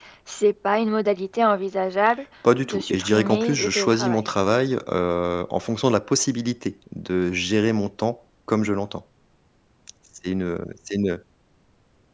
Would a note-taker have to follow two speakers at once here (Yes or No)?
Yes